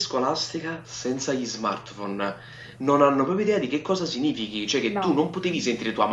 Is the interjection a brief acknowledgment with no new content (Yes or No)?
Yes